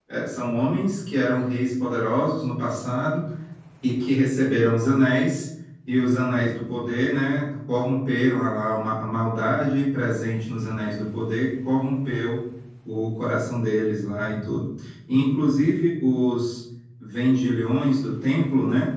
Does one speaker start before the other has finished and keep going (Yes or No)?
No